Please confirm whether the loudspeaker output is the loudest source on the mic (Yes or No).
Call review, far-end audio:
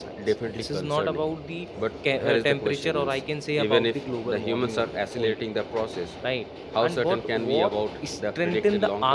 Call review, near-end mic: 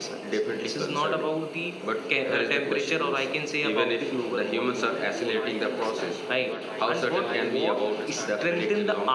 Yes